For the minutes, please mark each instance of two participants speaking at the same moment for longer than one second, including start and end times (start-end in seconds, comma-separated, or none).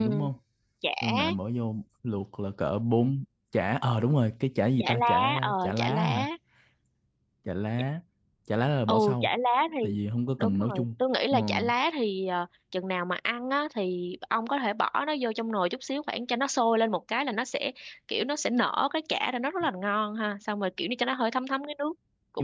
4.8-6.3